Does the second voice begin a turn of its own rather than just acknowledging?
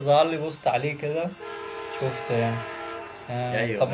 No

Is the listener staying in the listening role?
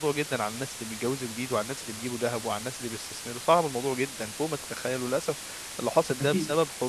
Yes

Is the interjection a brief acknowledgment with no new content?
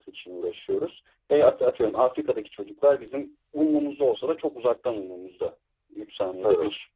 Yes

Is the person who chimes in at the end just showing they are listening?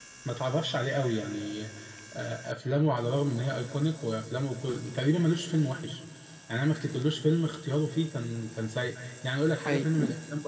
Yes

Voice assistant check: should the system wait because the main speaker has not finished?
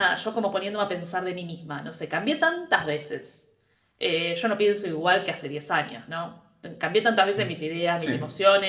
Yes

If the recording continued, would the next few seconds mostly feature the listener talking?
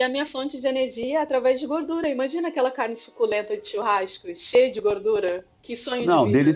Yes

